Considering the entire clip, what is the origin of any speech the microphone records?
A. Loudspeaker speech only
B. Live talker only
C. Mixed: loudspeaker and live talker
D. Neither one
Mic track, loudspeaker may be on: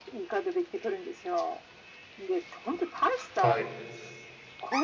C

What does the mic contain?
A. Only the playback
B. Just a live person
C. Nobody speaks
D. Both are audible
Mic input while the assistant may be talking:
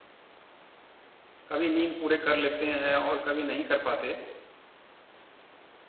B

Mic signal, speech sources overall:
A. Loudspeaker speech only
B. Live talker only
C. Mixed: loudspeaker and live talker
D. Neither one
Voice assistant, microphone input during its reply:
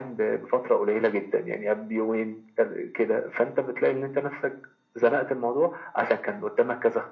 A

